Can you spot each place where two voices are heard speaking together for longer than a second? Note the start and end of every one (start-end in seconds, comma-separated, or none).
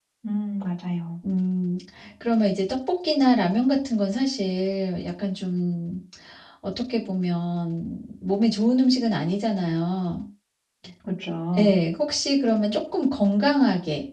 none